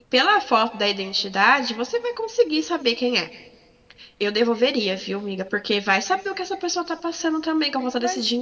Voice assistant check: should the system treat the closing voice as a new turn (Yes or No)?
Yes